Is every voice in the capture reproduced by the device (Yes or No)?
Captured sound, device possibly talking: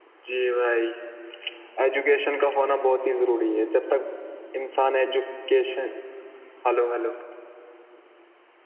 No